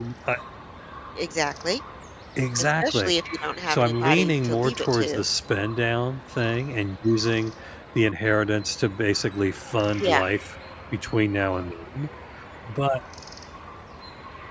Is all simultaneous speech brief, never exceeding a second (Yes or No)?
No